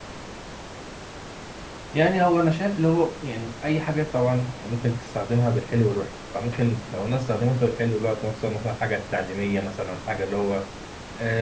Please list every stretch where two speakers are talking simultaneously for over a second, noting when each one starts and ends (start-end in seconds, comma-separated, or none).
none